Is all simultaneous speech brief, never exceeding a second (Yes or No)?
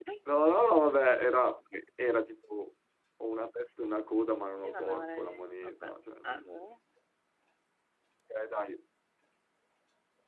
No